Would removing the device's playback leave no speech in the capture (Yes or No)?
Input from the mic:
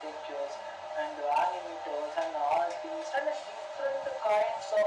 Yes